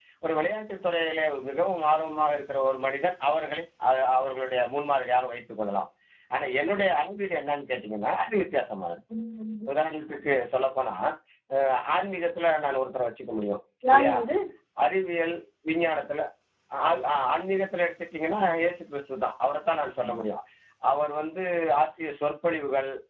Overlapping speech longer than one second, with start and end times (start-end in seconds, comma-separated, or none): none